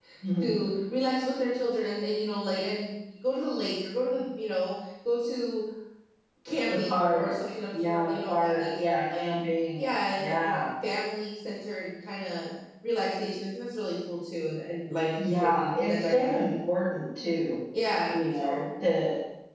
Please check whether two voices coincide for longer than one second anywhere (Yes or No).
Yes